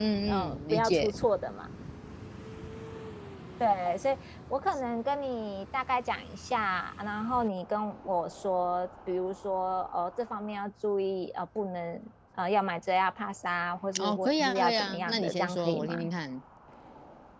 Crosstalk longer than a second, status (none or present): present